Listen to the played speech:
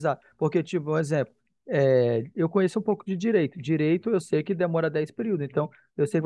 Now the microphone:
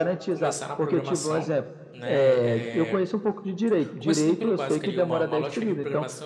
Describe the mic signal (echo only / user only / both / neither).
both